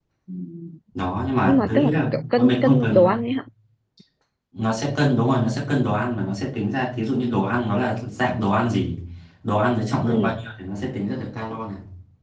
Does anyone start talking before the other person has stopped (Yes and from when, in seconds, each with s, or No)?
Yes, from 1.4 s